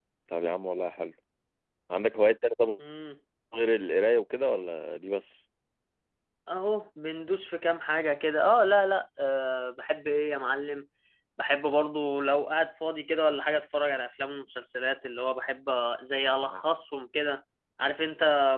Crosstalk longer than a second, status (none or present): none